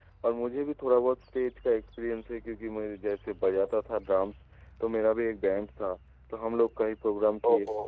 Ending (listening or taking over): listening